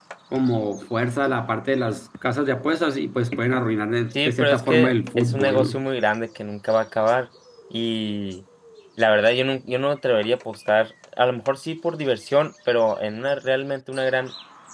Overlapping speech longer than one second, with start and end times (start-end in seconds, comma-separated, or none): 4.2-5.8